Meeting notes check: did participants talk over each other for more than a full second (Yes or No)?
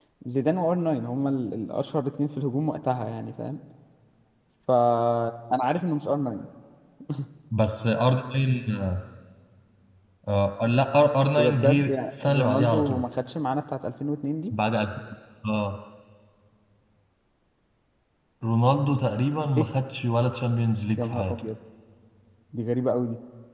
Yes